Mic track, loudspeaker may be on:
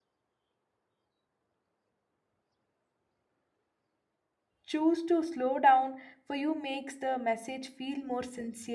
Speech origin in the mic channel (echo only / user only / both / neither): user only